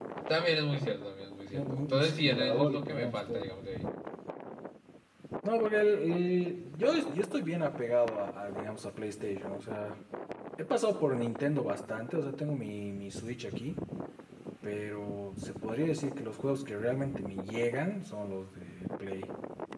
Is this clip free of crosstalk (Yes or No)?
No